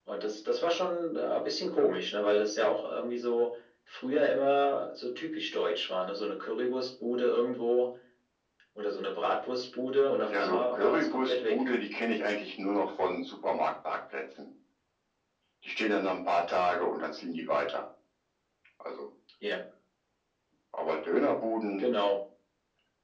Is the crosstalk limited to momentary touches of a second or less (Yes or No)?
No